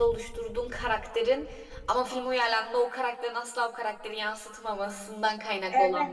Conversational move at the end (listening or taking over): taking over